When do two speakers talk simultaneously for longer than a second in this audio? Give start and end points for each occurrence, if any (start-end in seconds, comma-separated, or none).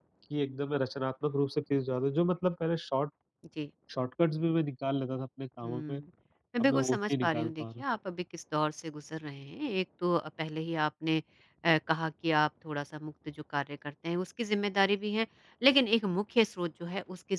6.6-7.8